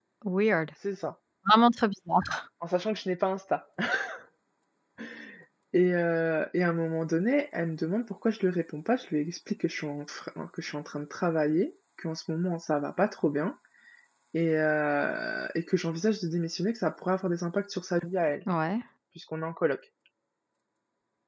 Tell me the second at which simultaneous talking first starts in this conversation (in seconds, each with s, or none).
none